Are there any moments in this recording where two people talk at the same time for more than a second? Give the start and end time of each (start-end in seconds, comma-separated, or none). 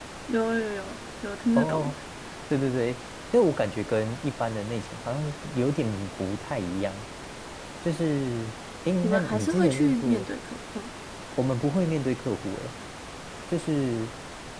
9.0-10.3